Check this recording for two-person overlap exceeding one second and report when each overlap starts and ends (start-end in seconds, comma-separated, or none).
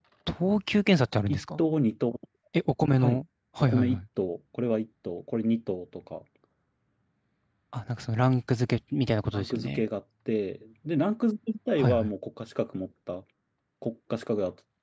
none